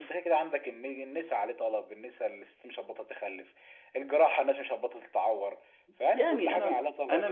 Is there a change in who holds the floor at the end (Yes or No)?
Yes